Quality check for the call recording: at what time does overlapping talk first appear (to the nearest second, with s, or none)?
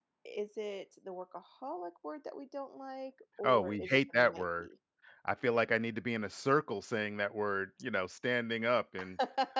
3 s